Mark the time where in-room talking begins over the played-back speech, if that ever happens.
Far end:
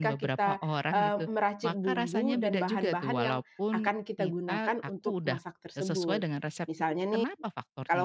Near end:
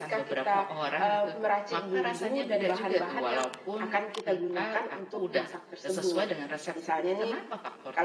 none

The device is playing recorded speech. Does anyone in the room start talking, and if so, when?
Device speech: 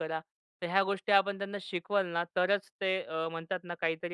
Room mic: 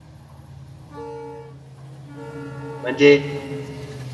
2.8 s

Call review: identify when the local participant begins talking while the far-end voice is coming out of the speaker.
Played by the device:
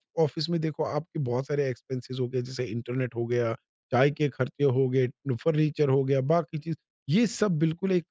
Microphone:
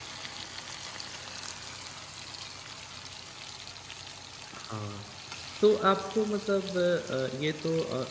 4.6 s

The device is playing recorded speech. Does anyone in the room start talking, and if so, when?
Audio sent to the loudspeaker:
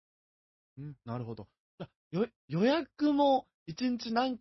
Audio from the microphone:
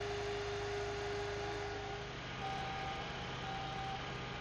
none

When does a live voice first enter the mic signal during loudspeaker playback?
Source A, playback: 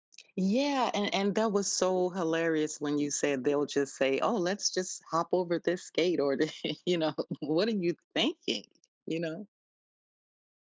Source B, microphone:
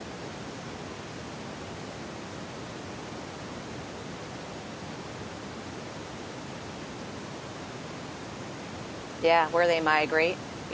9.2 s

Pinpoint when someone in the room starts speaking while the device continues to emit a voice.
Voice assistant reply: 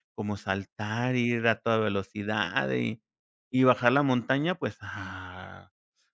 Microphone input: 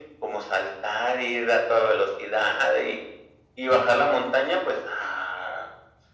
none

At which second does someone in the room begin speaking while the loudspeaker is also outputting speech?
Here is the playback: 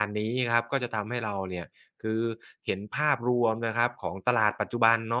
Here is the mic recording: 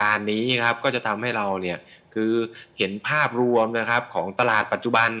none

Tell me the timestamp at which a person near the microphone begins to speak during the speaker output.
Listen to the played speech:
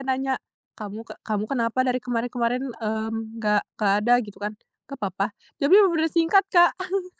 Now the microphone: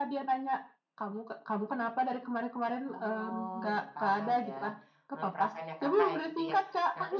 2.9 s

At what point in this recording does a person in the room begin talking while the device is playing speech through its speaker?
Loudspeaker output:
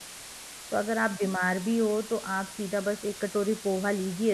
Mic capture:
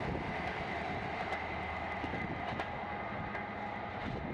none

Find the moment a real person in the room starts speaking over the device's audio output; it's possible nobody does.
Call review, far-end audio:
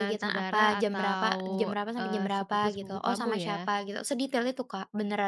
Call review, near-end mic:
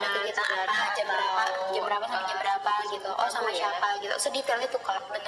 none

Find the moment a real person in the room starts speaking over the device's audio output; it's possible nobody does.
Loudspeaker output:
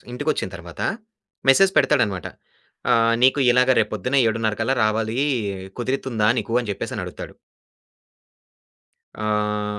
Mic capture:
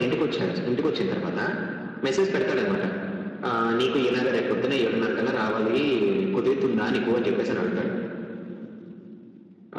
none

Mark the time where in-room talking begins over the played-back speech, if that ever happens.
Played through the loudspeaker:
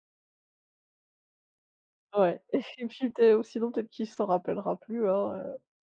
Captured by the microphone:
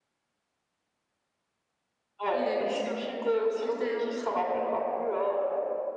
2.3 s

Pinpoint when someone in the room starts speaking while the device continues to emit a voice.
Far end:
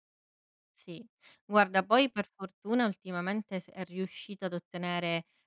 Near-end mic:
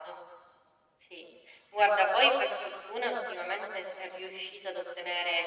none

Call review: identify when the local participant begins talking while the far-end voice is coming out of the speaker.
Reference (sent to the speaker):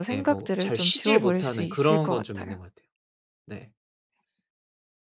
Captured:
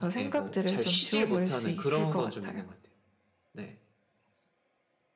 none

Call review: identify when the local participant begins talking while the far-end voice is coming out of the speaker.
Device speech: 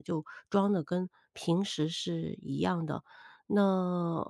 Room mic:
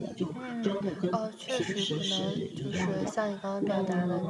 0.3 s

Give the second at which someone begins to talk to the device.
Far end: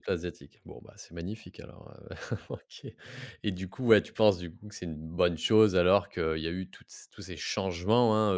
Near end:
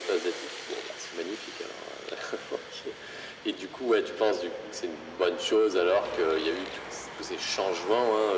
none

